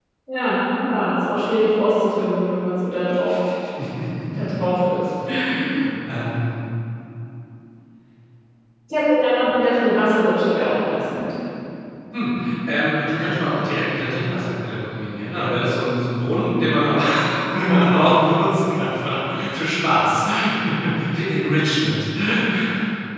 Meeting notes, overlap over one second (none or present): none